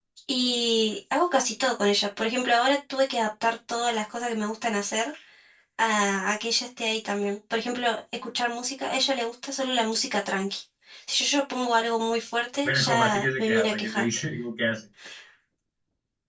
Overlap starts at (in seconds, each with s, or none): 12.7 s